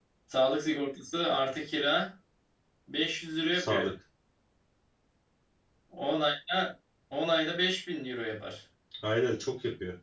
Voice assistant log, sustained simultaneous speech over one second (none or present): none